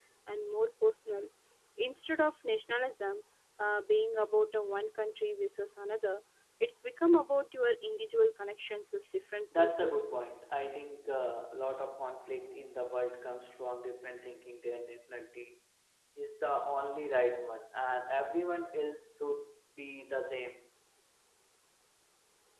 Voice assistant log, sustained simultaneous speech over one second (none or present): none